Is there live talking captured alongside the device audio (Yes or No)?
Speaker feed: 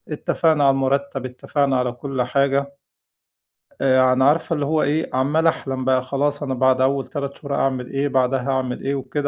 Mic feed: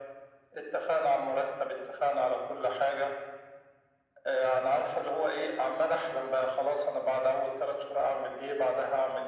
No